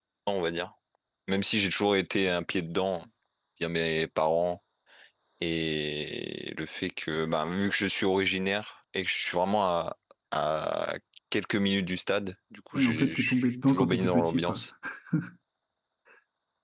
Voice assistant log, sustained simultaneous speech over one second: present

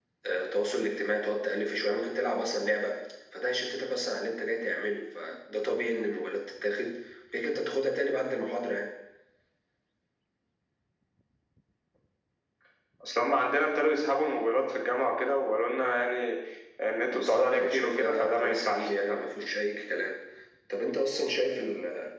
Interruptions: present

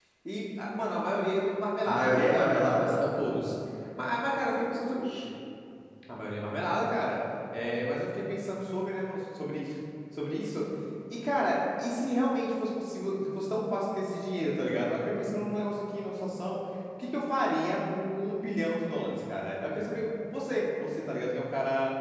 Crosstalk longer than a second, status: present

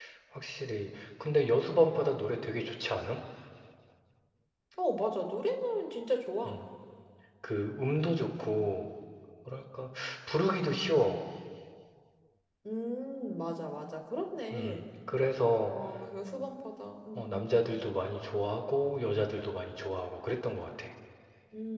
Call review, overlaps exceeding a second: none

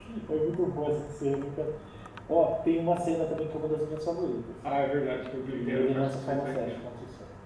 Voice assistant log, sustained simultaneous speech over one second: present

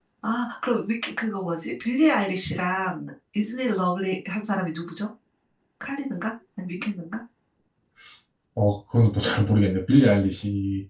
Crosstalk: none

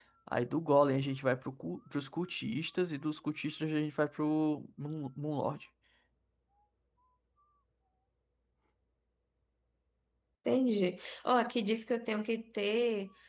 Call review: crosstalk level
none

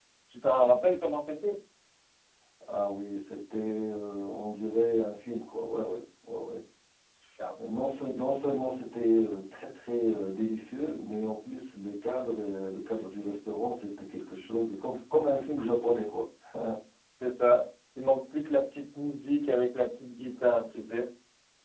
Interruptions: none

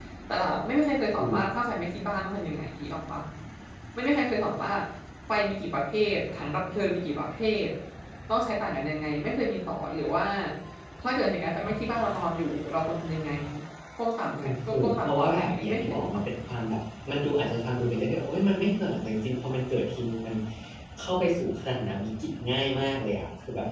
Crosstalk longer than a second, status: present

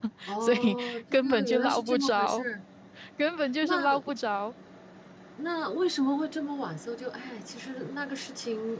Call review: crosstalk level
present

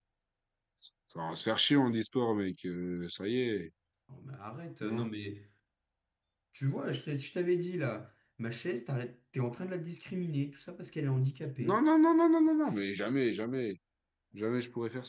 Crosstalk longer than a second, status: none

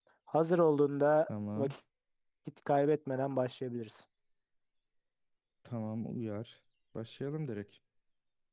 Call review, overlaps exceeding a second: none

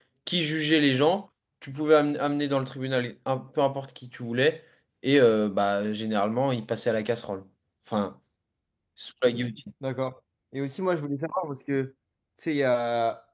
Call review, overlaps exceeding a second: none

